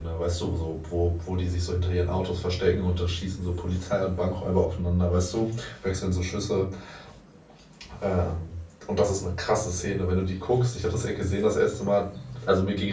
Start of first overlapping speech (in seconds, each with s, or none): none